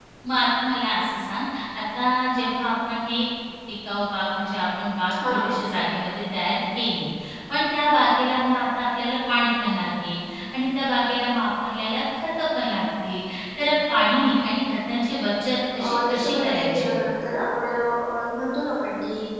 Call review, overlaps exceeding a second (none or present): present